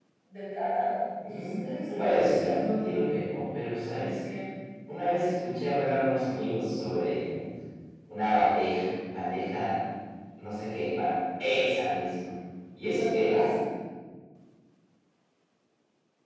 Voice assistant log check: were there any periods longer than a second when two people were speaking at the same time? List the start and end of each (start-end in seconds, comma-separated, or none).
1.2-2.7